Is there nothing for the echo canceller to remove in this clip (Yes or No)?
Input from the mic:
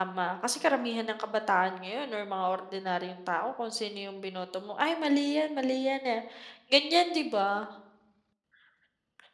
Yes